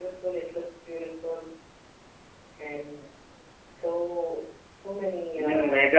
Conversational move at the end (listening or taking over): taking over